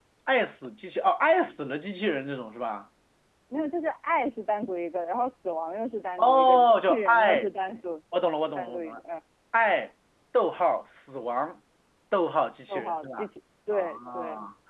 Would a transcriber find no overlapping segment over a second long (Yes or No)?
No